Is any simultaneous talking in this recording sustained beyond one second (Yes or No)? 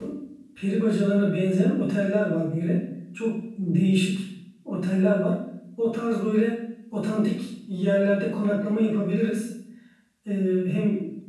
No